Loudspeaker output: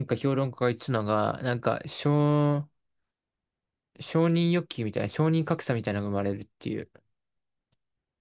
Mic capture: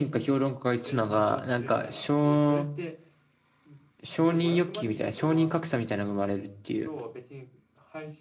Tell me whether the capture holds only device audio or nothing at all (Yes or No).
No